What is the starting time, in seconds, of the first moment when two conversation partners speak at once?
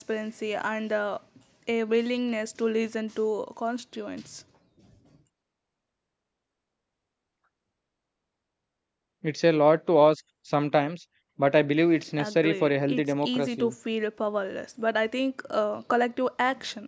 12 s

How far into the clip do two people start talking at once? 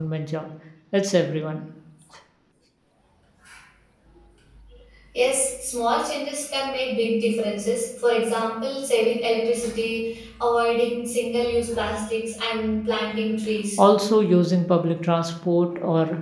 none

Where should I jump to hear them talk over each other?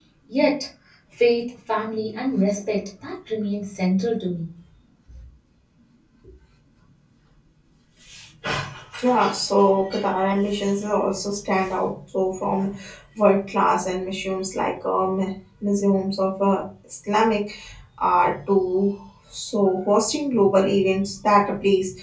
none

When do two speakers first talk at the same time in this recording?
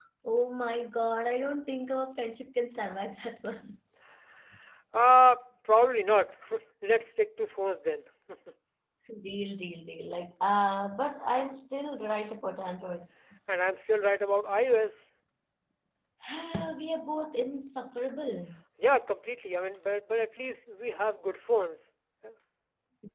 none

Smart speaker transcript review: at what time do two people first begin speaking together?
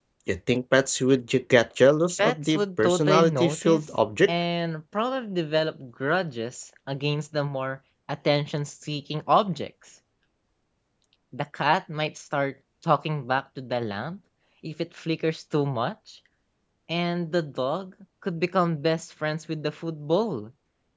2 s

